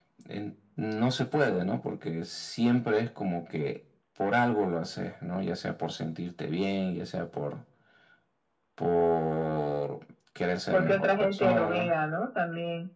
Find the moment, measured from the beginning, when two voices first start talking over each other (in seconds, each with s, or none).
10.7 s